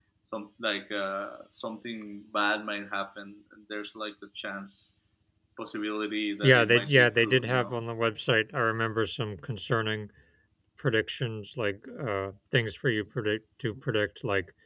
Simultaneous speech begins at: 6.4 s

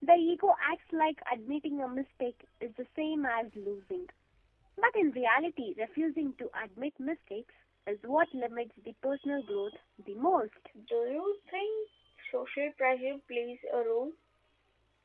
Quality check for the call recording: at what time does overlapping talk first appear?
none

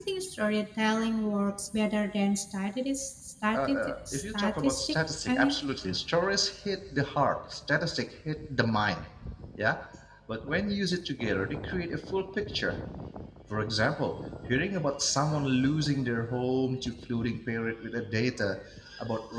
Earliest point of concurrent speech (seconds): 3.5 s

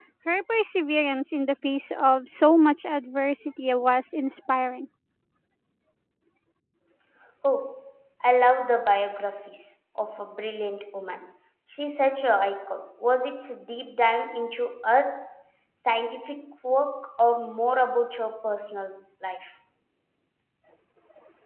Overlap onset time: none

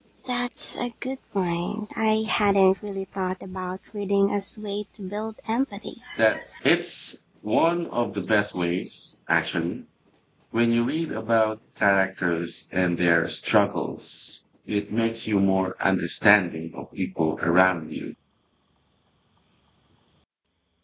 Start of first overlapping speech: none

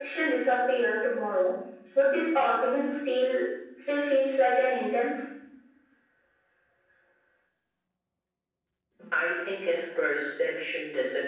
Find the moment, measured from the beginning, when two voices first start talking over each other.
none

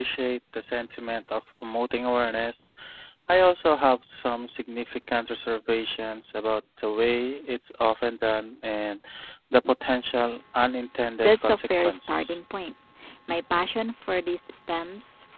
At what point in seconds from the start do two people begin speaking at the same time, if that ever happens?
11.2 s

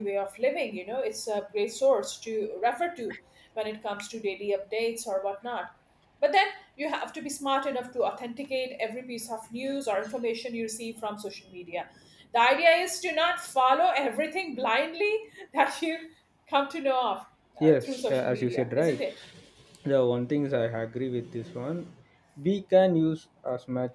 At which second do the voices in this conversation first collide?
17.6 s

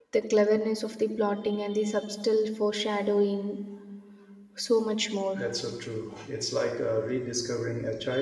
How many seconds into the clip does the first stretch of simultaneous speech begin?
none

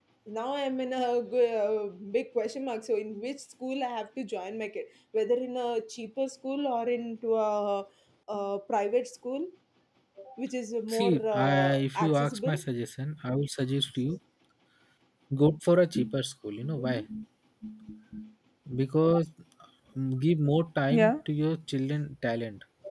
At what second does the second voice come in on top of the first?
10.9 s

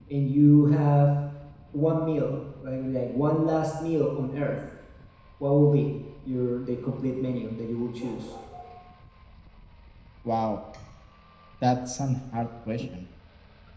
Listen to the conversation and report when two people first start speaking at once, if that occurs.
none

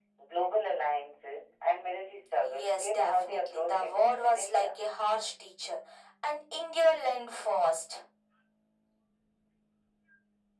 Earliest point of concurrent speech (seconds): 2.4 s

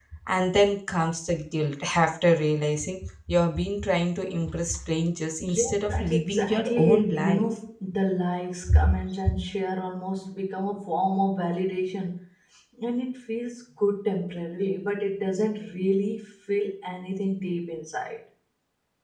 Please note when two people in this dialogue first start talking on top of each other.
5.4 s

